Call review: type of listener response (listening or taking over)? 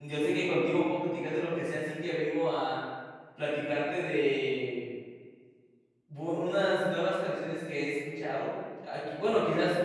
listening